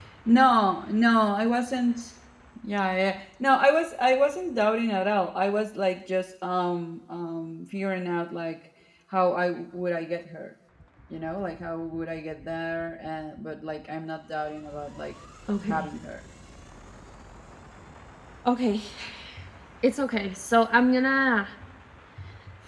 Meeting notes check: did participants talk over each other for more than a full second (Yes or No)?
No